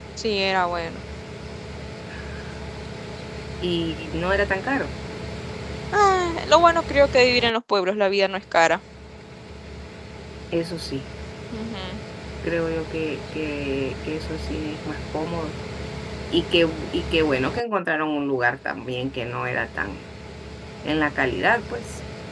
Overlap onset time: none

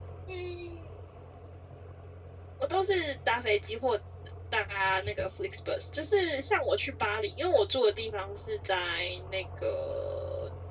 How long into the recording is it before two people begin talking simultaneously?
none

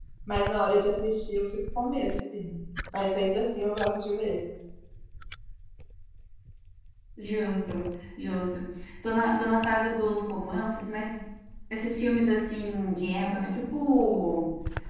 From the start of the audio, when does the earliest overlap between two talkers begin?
none

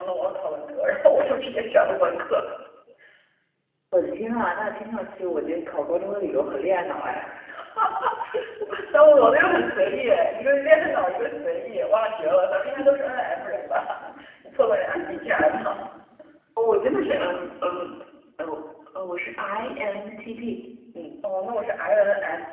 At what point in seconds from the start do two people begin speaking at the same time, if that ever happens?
none

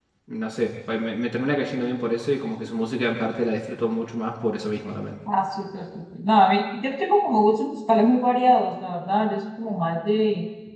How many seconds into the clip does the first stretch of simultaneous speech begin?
none

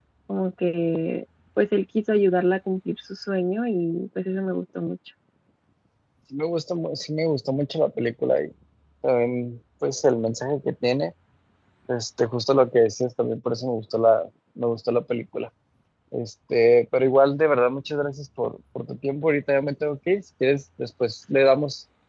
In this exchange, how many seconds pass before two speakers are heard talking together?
none

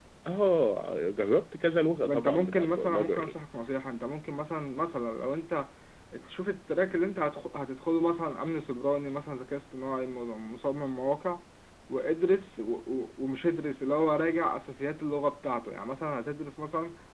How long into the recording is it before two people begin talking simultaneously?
2 s

